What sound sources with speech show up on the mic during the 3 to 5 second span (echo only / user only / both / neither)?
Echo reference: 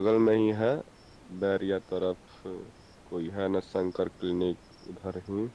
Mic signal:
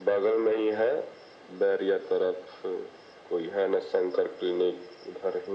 echo only